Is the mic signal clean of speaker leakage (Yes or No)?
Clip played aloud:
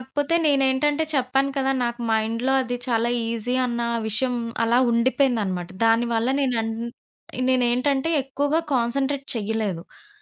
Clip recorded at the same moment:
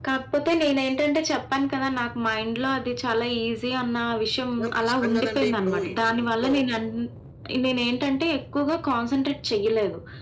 No